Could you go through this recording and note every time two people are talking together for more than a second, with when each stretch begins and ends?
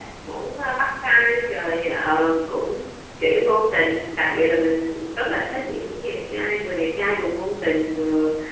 none

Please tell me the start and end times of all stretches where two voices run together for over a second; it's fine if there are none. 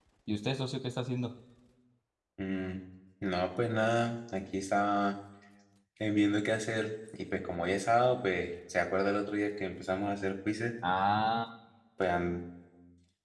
none

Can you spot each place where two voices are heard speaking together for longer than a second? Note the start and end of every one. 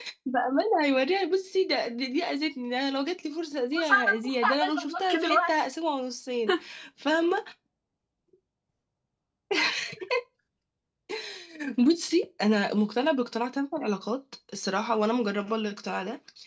3.8-5.5

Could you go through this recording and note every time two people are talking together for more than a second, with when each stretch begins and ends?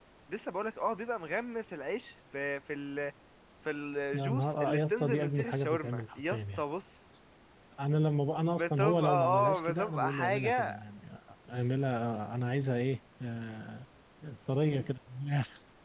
4.1-6.6, 8.6-10.8

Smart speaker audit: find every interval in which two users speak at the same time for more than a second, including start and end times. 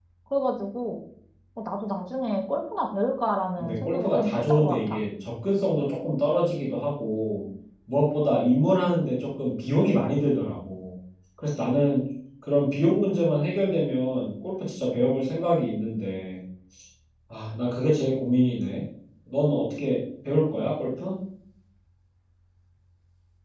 3.6-5.0

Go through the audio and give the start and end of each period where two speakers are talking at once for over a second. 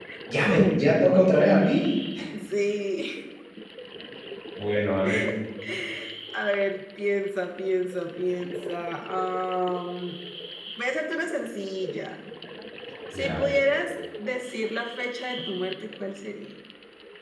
none

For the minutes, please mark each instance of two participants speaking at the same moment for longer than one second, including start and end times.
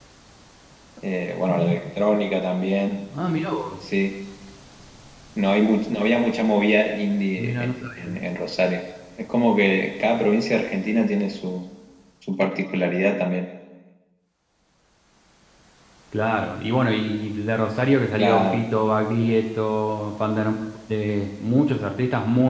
none

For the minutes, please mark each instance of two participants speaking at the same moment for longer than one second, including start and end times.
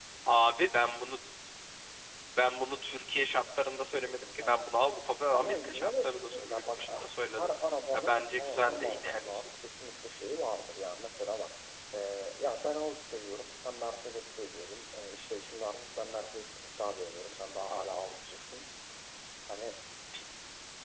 5.3-7.5, 7.9-9.3

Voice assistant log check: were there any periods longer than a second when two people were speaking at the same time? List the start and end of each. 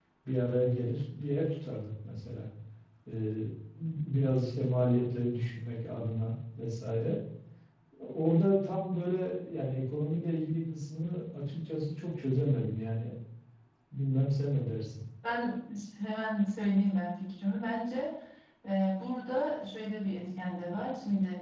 none

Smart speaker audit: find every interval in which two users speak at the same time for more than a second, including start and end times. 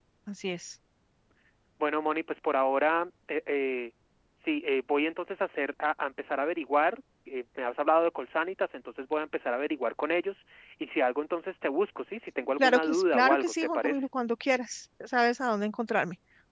12.6-14.0

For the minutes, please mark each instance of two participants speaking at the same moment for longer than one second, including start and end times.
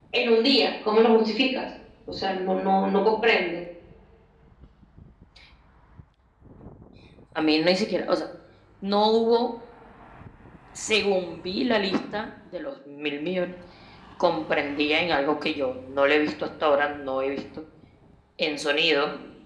none

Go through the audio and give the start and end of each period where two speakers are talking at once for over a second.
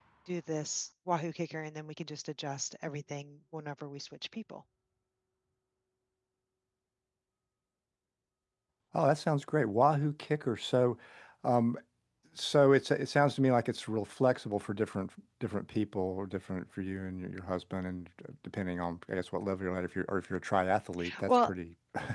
none

